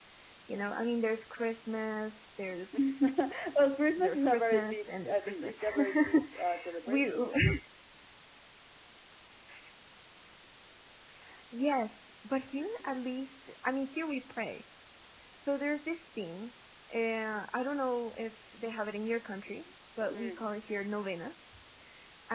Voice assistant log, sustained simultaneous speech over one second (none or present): present